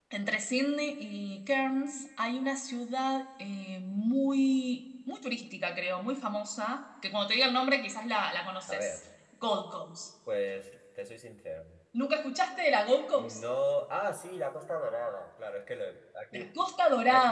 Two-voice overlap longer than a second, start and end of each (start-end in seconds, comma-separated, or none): none